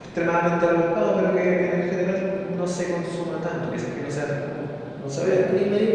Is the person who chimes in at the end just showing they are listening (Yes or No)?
No